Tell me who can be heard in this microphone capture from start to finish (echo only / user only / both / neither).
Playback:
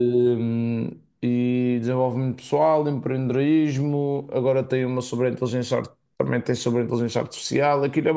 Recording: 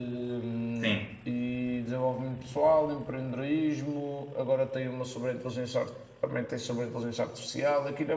both